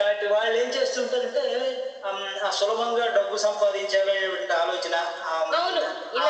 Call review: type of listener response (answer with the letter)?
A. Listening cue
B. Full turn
B